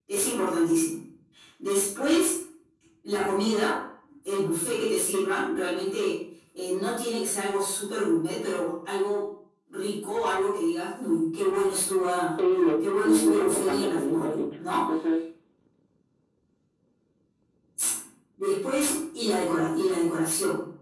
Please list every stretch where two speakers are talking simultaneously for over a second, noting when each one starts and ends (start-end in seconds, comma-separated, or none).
12.5-14.7